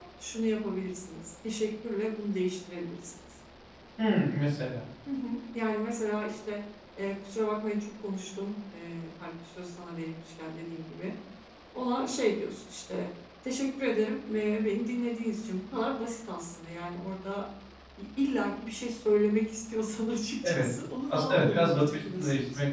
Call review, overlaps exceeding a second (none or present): present